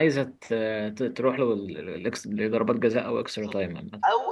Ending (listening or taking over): taking over